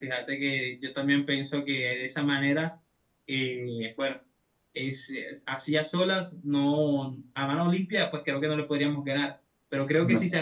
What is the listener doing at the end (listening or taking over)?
listening